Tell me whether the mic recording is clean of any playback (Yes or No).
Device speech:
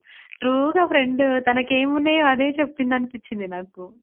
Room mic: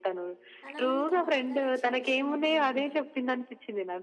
No